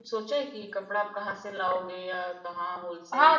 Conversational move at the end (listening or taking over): taking over